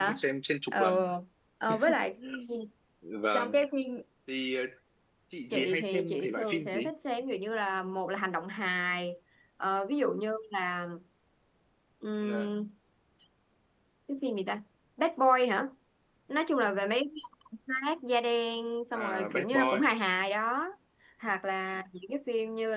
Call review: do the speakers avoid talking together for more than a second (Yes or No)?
No